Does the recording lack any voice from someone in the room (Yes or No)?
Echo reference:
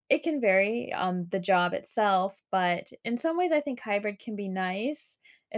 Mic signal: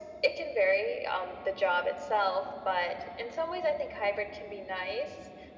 Yes